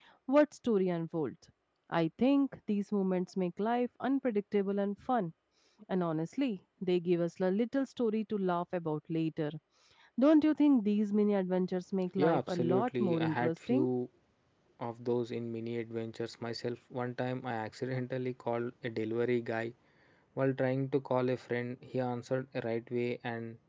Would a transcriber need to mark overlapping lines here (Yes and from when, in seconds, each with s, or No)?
Yes, from 12.2 s